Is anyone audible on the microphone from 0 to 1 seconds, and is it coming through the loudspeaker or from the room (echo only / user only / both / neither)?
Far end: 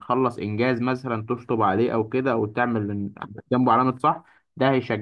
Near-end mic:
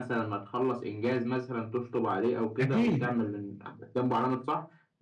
echo only